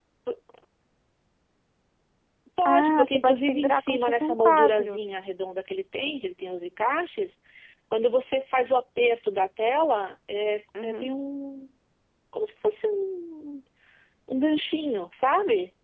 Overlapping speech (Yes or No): Yes